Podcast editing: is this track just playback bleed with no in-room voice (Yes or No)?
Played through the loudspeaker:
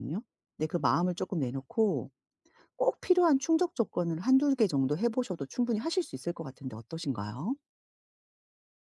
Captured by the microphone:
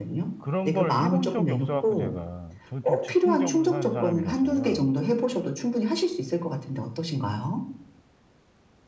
No